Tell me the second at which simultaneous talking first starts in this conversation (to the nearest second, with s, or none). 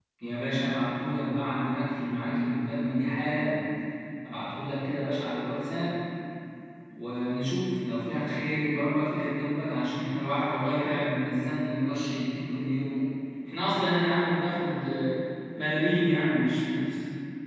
none